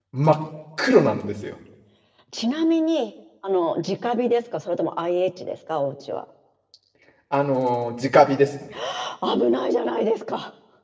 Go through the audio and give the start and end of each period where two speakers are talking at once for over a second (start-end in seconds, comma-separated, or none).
none